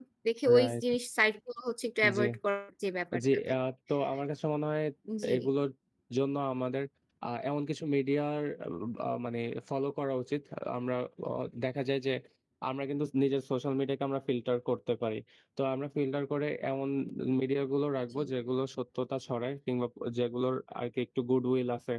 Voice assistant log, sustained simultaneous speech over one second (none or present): none